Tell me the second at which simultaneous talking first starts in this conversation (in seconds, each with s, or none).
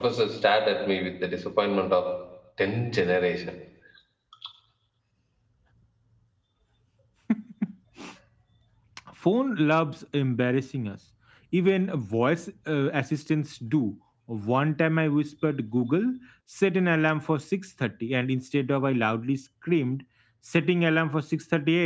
none